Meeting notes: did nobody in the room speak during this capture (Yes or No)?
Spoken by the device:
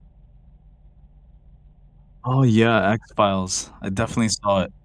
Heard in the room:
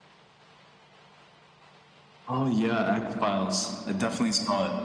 Yes